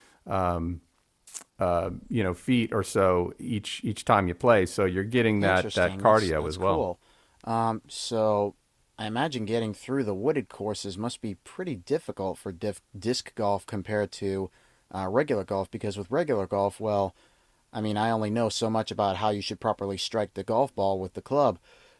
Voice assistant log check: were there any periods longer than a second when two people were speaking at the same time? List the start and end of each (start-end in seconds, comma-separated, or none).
5.4-6.8